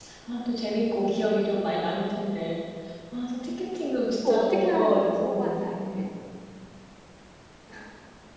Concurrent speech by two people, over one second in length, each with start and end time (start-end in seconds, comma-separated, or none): 4.2-5.5